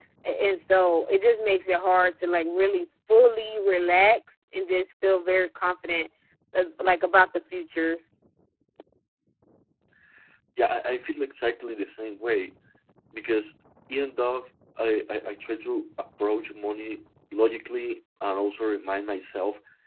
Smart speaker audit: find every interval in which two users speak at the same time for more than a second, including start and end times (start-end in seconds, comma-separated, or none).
none